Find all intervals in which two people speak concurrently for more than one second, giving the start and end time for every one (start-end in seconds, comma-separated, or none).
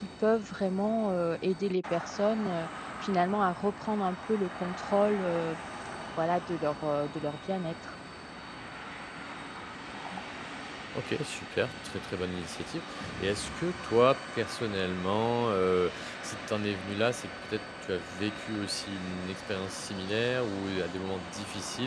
none